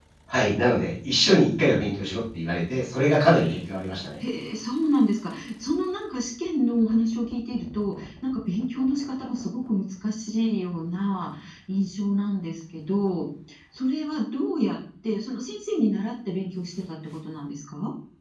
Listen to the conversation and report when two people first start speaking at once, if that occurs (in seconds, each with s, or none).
none